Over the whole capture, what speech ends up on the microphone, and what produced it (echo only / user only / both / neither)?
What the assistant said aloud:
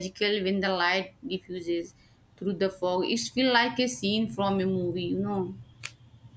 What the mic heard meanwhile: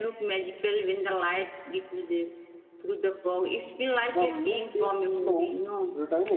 both